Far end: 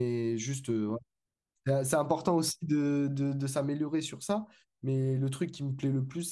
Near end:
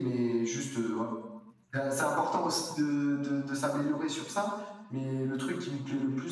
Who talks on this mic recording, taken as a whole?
echo only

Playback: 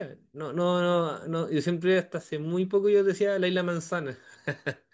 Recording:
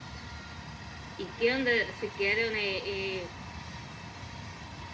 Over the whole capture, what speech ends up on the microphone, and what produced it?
user only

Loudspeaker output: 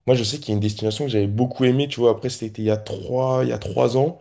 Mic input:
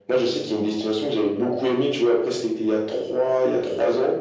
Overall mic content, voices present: echo only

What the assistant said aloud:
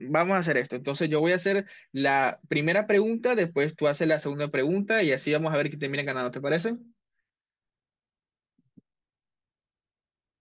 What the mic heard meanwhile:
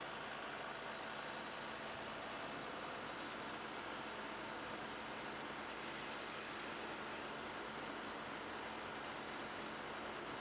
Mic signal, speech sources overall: neither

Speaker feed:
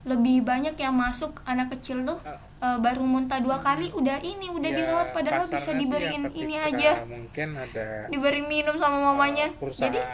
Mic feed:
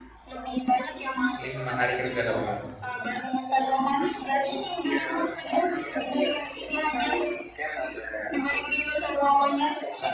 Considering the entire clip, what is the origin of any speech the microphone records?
both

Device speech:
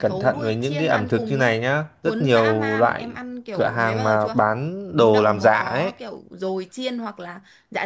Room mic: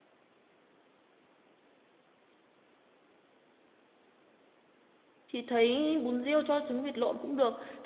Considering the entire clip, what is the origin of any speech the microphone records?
user only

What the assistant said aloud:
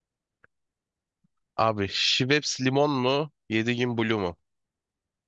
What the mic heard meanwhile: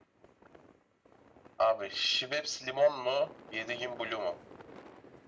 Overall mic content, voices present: echo only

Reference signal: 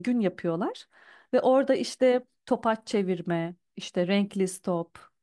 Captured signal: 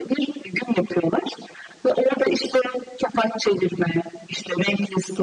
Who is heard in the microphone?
echo only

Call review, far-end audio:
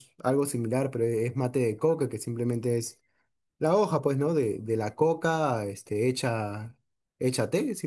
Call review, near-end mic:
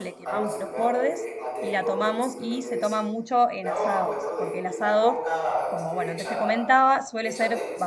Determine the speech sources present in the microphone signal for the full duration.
both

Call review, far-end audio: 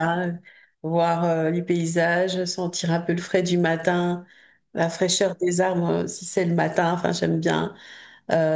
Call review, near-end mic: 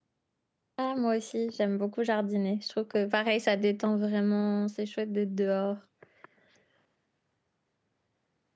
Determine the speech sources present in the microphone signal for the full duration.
user only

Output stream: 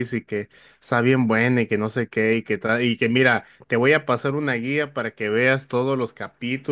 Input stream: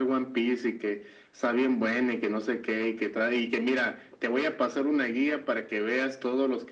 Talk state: echo only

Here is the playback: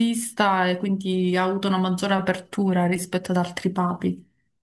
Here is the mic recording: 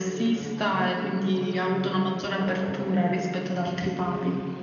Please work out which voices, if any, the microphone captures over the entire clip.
both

